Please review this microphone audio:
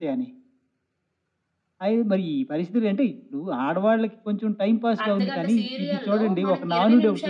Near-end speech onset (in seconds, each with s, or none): 5.0 s